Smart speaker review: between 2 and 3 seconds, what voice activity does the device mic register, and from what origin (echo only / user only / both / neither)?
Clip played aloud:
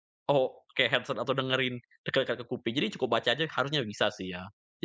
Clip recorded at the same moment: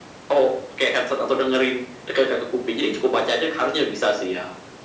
echo only